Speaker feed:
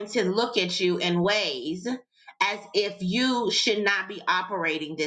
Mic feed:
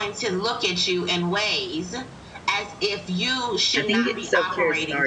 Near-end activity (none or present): present